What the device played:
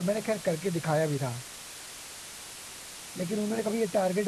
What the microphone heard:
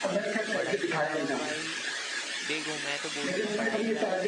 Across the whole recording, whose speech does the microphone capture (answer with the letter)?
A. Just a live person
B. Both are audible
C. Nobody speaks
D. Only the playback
B